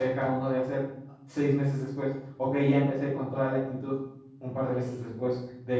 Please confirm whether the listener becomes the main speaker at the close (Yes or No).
No